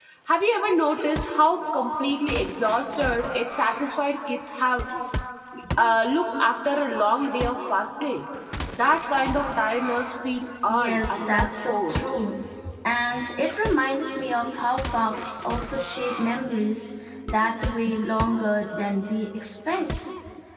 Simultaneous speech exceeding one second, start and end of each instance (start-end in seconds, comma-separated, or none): 10.7-12.0